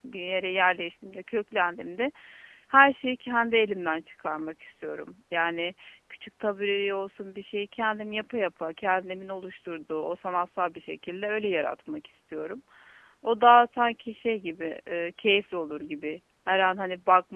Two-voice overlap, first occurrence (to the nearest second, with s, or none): none